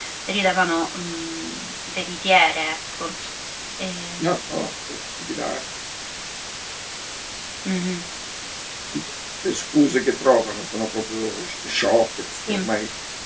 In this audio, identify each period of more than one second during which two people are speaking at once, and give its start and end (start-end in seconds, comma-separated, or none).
none